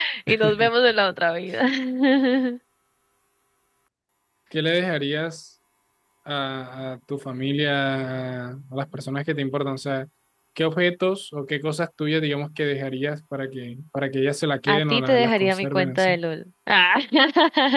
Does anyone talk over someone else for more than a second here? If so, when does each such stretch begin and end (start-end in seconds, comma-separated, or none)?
14.7-16.2